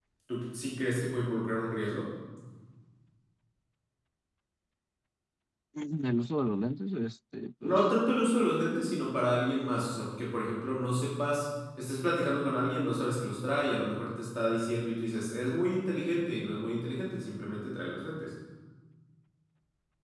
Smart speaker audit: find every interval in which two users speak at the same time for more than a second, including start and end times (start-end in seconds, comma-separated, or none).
none